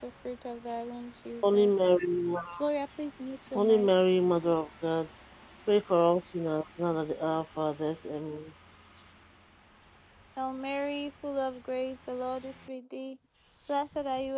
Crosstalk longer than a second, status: none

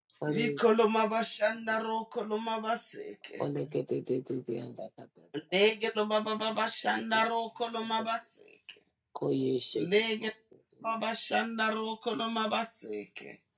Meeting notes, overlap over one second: none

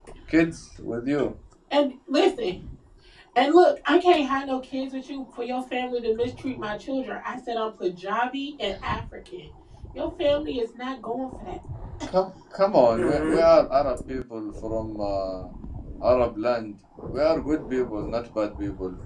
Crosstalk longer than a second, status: none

